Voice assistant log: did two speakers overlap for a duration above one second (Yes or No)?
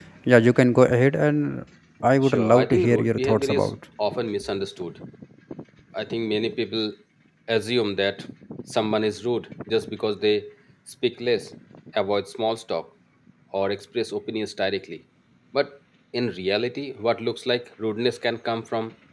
Yes